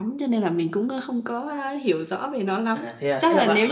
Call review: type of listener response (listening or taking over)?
taking over